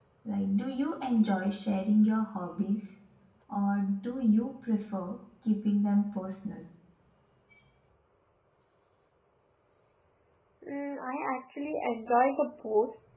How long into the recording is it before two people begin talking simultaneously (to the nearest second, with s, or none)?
none